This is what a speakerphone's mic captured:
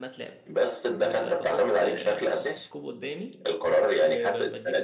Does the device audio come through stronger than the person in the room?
Yes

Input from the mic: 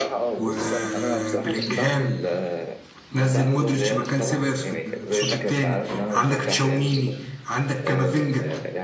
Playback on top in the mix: No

